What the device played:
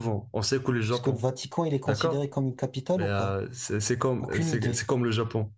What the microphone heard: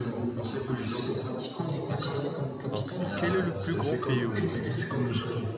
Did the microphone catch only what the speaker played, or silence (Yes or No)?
No